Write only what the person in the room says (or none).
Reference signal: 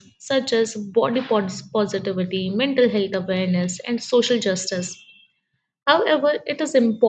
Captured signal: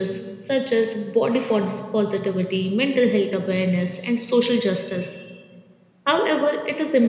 none